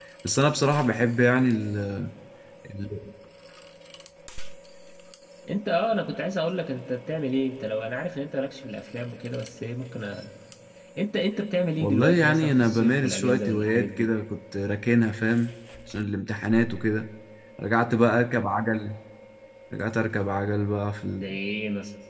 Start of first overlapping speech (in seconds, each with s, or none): 11.8 s